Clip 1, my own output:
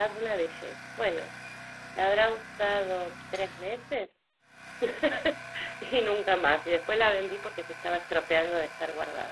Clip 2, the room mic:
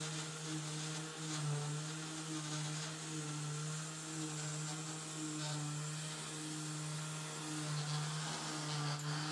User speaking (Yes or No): No